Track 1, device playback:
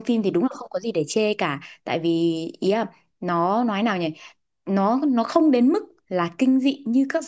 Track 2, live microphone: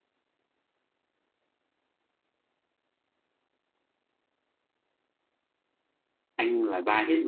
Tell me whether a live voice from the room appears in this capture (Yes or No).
Yes